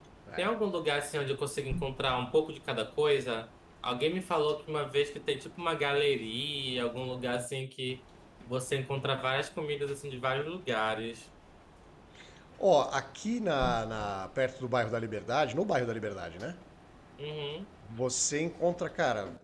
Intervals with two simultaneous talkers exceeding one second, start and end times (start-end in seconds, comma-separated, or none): none